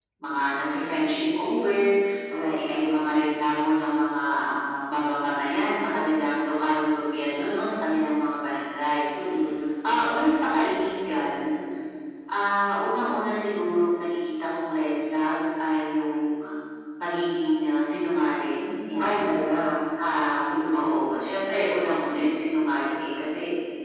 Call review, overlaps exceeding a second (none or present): none